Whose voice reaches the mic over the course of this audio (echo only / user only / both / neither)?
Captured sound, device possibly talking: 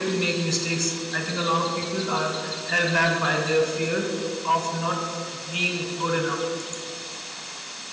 echo only